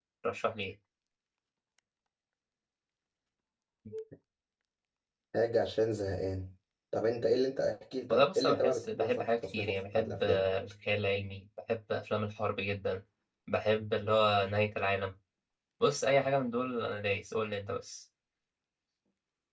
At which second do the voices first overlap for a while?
8 s

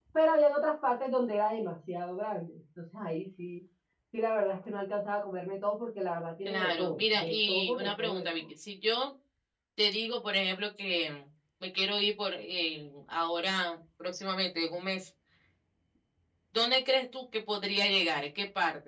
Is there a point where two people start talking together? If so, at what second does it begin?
6 s

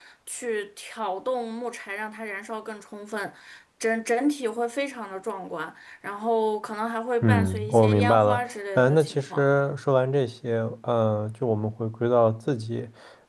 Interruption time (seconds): 7 s

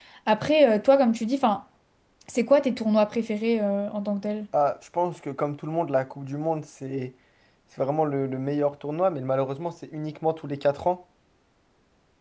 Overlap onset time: none

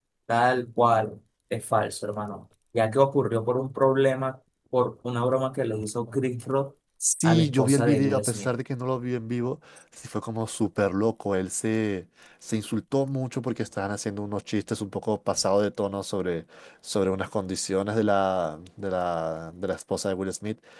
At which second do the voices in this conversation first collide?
7 s

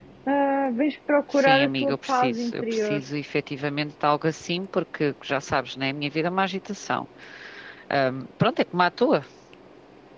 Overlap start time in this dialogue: 1 s

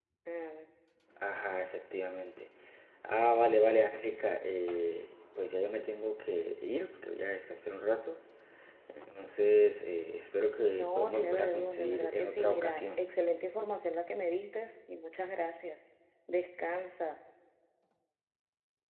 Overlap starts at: 11 s

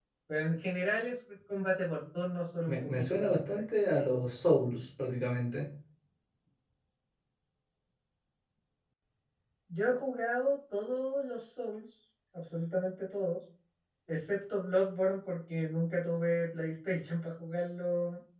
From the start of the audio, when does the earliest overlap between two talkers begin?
3 s

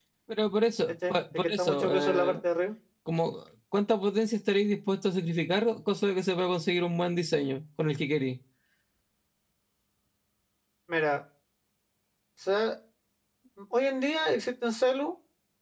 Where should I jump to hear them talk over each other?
1 s

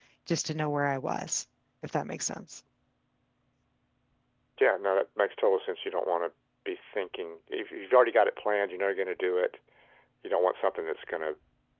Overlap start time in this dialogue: none

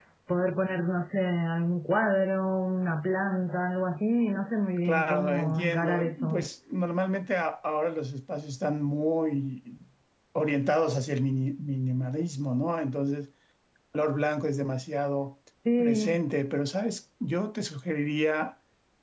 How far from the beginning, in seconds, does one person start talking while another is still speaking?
5 s

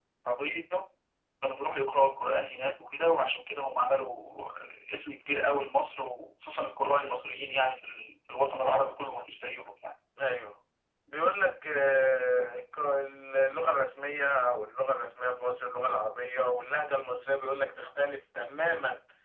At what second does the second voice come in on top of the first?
none

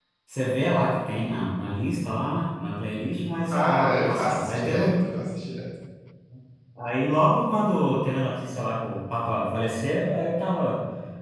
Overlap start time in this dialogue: 4 s

